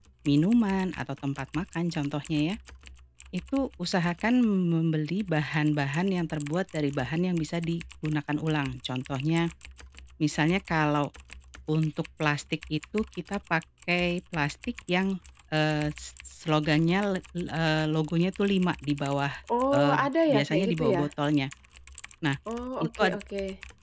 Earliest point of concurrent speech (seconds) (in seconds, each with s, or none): 19.7 s